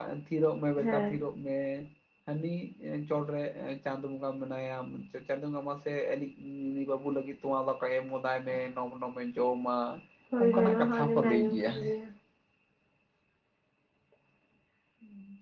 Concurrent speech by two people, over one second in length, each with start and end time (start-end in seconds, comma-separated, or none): 10.4-11.7